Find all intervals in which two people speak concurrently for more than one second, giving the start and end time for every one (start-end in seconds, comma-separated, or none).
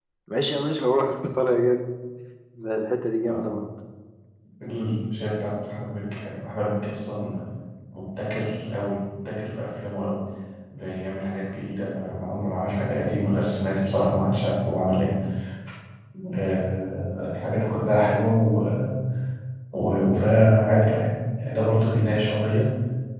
none